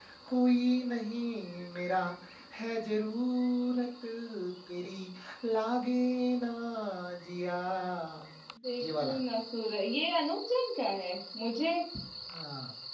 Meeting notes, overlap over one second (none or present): none